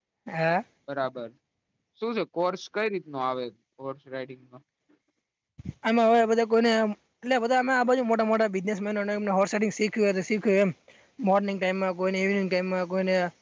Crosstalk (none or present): none